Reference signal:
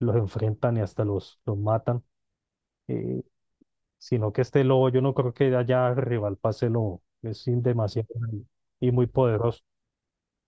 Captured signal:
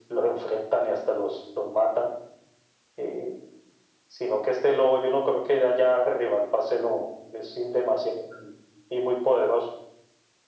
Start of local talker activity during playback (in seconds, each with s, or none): none